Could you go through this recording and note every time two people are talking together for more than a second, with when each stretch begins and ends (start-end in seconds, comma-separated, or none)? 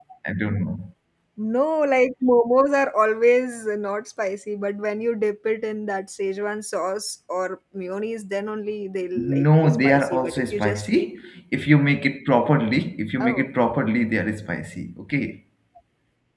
9.4-11.1